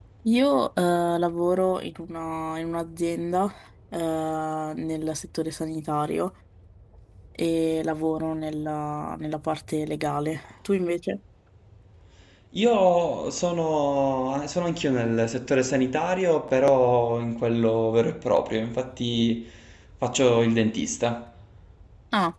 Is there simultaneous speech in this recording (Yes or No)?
No